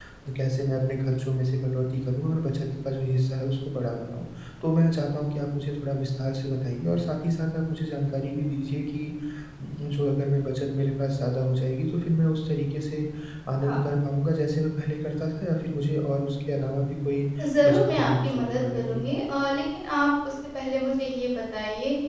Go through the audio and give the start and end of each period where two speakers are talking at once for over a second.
17.6-19.1

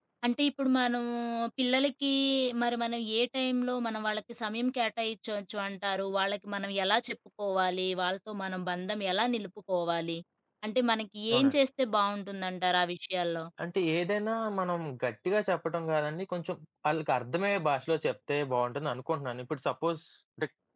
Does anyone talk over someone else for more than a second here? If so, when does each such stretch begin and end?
none

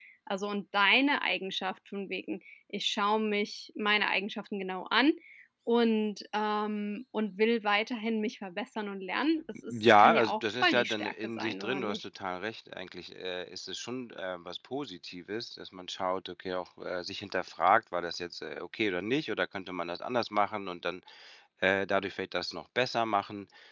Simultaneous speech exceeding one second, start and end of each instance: 9.7-12.0

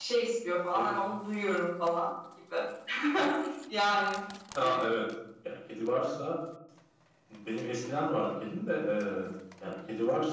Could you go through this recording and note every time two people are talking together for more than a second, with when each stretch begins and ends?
none

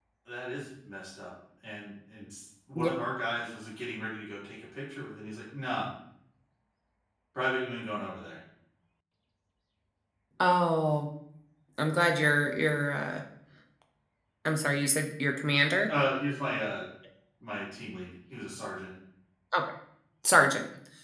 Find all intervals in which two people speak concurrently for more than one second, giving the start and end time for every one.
none

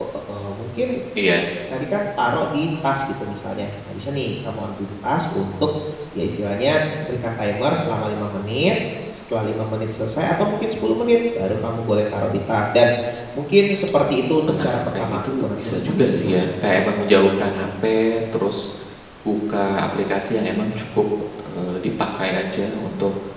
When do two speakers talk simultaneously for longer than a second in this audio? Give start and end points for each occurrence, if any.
14.5-16.4

